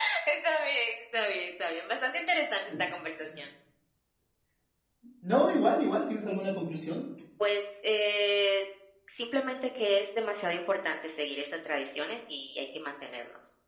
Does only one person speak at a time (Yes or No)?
Yes